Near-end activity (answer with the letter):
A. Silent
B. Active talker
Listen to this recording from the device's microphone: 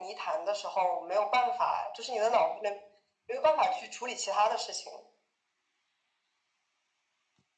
A